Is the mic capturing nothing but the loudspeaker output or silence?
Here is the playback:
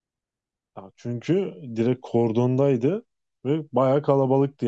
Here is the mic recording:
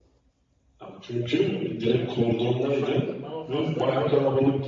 No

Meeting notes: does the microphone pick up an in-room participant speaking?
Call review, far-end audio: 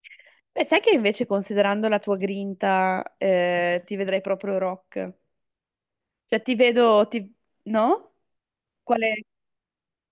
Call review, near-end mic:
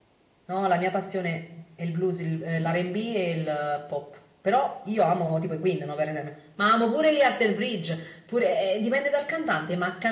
Yes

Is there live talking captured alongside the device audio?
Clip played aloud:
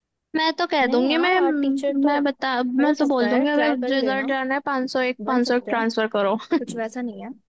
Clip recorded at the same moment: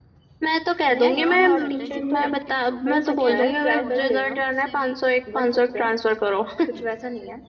Yes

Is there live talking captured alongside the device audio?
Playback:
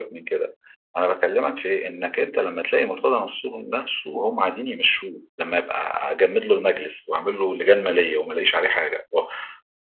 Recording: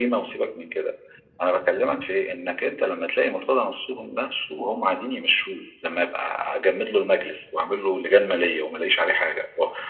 No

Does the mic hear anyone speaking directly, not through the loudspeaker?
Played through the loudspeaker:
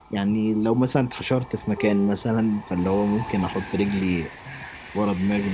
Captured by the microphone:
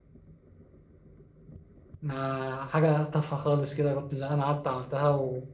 Yes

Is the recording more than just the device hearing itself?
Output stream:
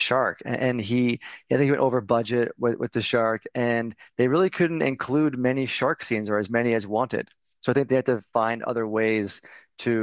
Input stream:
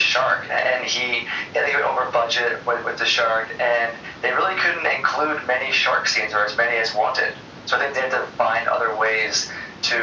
No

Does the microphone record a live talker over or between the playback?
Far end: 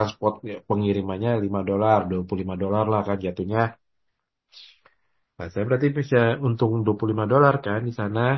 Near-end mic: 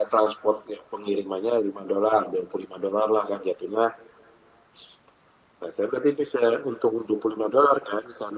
No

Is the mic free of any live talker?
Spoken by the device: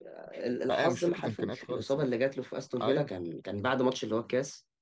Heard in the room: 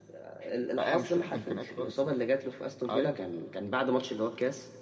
Yes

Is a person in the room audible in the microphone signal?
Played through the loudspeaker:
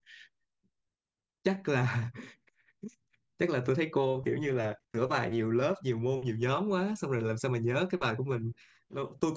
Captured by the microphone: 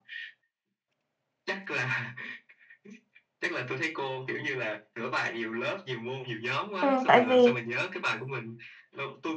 Yes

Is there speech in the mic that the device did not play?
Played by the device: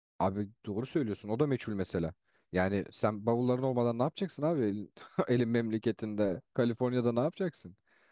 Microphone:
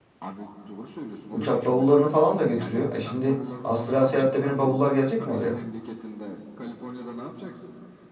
Yes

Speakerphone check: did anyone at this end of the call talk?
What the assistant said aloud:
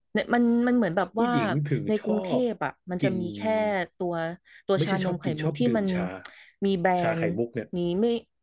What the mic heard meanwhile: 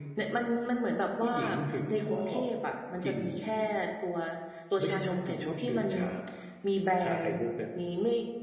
No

